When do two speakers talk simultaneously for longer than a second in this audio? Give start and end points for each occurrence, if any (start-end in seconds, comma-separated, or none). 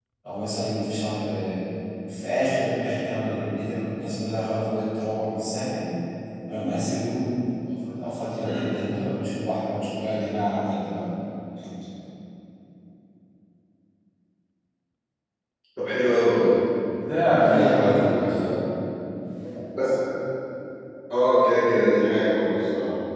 17.3-18.6